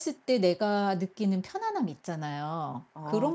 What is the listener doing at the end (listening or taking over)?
taking over